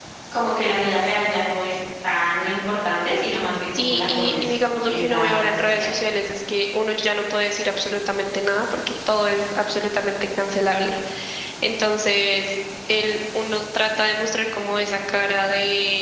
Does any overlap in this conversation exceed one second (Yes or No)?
Yes